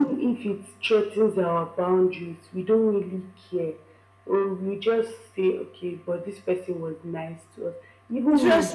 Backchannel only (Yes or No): No